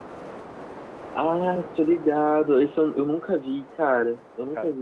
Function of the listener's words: taking over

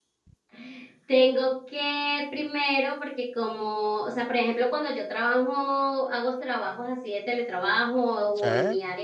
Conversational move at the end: listening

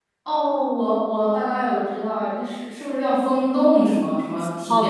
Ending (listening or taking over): taking over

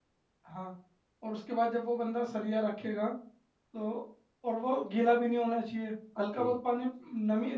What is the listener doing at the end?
listening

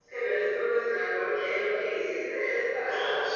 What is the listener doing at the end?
taking over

